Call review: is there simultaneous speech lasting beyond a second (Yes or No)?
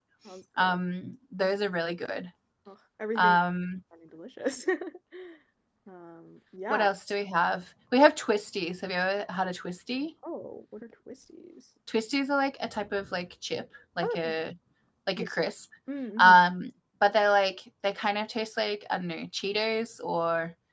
No